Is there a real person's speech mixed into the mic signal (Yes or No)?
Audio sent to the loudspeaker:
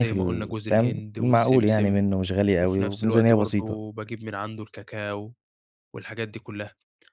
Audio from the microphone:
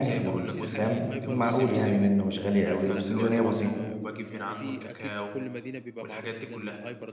Yes